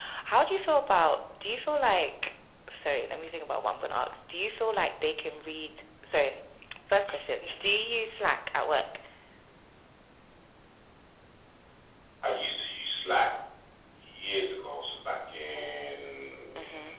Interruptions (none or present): none